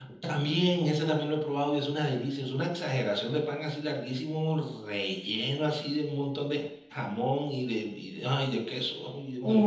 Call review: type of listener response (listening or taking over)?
taking over